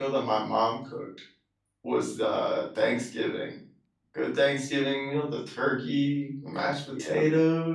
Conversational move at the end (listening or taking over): listening